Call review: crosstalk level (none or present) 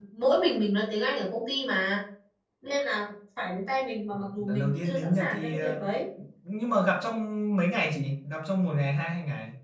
present